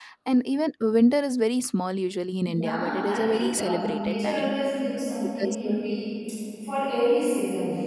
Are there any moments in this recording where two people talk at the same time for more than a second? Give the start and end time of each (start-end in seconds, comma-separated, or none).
2.4-4.5